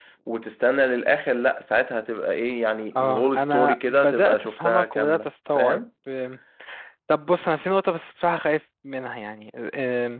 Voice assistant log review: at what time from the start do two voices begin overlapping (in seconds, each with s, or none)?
3.0 s